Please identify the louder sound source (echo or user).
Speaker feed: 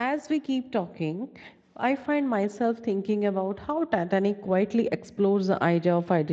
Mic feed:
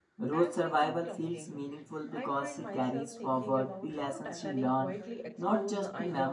user